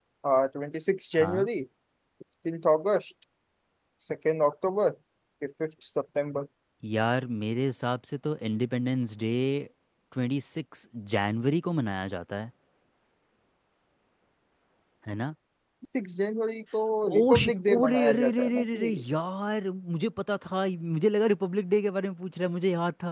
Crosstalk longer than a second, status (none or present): present